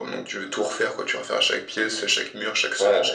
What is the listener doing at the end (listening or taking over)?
taking over